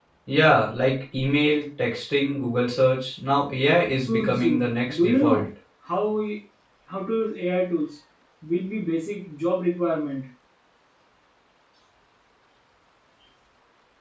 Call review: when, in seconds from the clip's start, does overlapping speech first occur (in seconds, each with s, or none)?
4.0 s